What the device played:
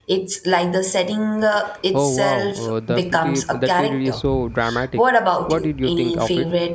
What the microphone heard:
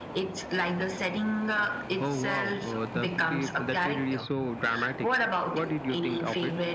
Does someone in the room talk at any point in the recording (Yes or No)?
No